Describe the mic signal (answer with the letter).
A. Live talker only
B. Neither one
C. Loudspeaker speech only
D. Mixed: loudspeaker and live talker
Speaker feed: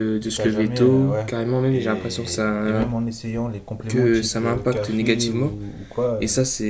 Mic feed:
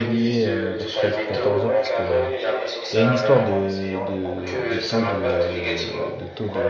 D